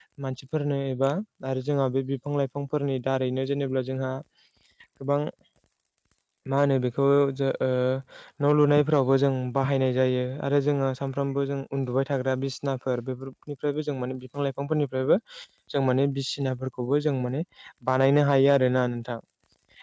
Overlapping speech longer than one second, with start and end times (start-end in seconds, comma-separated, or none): none